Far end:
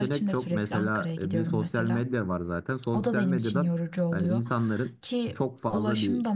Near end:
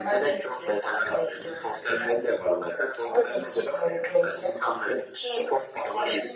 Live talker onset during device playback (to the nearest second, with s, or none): none